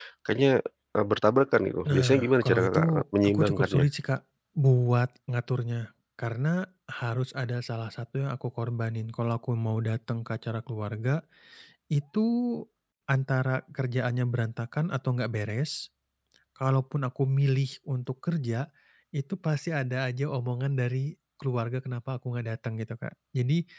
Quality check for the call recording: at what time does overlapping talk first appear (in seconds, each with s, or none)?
1.8 s